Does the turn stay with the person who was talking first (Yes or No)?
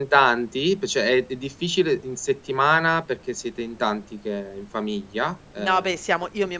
No